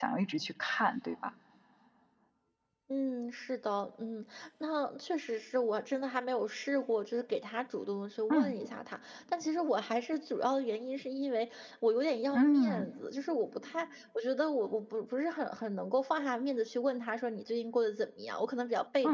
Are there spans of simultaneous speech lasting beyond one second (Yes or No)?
No